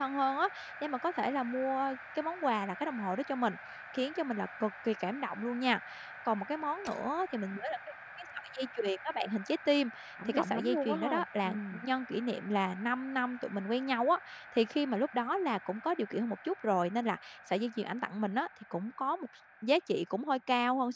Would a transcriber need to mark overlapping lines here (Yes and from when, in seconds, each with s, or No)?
Yes, from 10.2 s